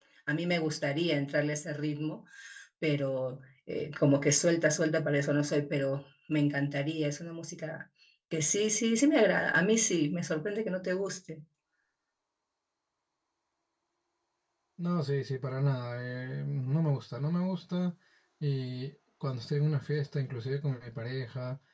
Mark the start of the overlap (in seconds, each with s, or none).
none